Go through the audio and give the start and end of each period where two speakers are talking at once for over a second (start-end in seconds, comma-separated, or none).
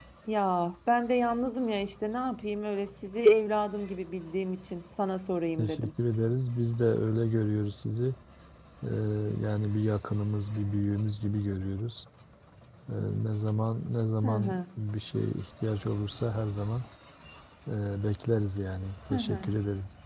none